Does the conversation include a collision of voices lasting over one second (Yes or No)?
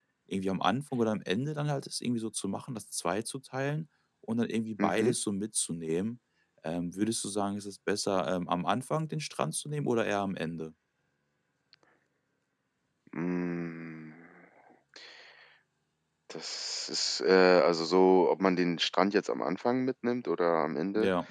No